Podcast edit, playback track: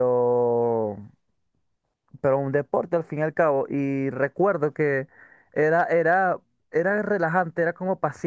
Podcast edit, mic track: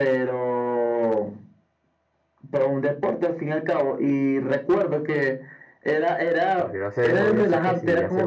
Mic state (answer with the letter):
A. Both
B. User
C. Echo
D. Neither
A